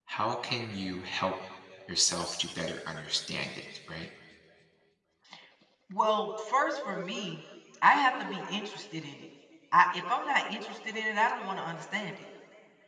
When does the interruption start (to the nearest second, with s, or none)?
none